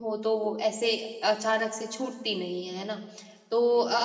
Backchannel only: Yes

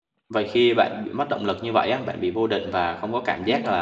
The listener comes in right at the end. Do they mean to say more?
No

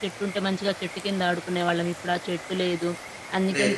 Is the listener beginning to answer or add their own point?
No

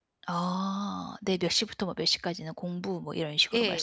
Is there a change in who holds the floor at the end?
Yes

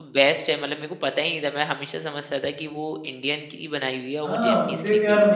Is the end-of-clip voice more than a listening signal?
Yes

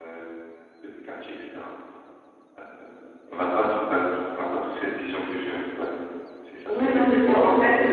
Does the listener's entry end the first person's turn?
Yes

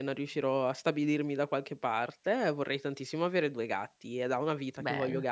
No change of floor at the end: Yes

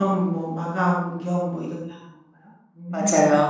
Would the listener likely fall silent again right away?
No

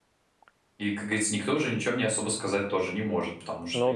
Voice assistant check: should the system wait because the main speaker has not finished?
Yes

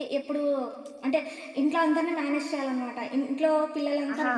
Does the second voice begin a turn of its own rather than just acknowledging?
No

